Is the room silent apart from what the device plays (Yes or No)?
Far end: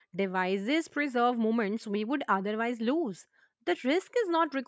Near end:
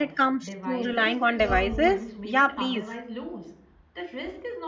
No